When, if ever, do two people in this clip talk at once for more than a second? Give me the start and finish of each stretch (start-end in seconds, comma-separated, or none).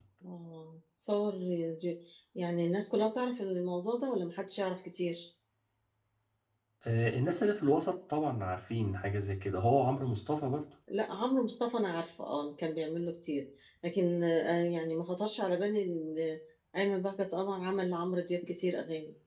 none